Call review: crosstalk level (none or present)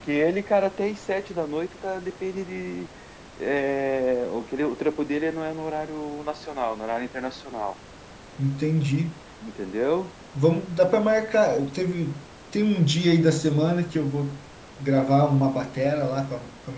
none